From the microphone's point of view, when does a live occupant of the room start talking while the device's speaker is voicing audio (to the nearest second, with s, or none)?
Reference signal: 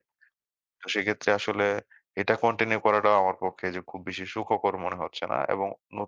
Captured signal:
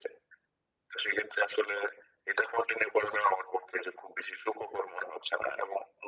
none